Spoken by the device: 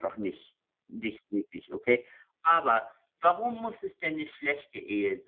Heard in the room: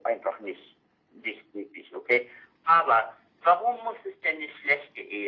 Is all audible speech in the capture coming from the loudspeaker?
Yes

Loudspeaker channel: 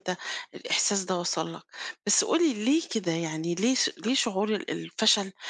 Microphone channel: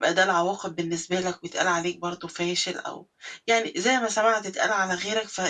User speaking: Yes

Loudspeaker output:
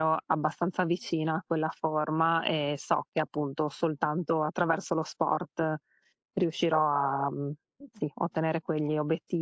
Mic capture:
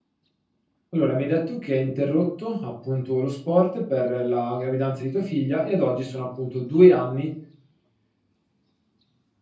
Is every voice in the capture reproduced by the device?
No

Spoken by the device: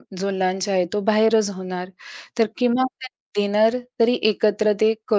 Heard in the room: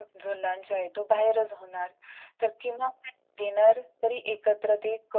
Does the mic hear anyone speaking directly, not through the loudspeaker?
No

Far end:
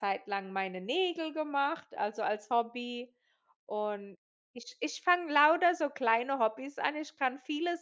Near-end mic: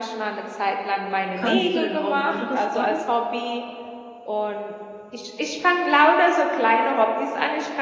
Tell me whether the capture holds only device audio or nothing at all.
No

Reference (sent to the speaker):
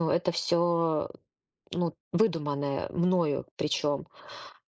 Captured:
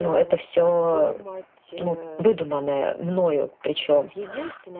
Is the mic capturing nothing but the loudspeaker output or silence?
No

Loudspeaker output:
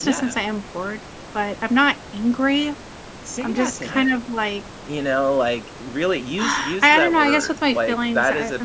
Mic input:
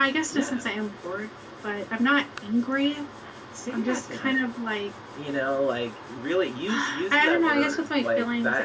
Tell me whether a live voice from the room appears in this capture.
No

